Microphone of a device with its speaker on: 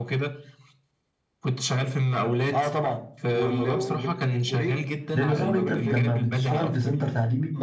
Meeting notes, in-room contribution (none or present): present